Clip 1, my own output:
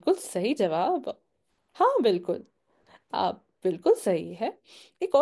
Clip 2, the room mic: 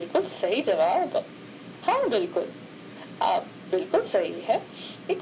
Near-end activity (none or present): none